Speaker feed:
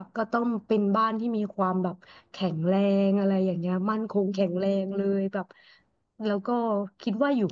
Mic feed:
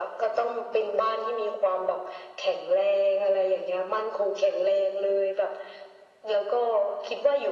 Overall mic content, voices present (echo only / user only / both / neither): echo only